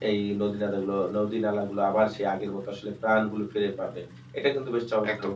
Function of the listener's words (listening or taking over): listening